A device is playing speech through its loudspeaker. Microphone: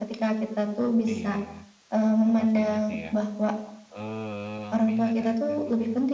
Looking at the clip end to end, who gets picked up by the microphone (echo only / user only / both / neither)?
both